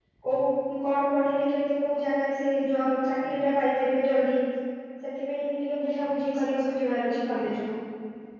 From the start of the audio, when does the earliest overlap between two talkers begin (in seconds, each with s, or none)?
none